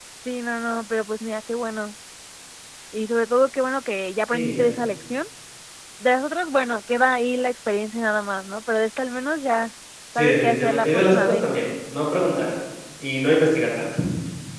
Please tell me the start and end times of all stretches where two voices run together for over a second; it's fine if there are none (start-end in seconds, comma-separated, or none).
10.2-11.4